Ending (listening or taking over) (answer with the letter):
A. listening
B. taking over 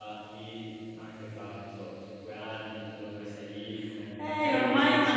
B